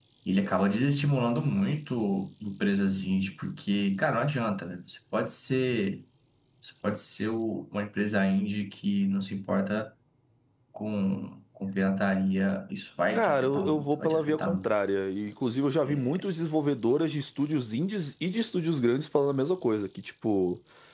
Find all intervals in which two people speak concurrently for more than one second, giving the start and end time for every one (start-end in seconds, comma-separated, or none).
13.2-14.6